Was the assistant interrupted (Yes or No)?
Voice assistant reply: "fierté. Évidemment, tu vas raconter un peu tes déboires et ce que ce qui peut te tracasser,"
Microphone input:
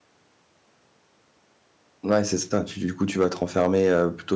Yes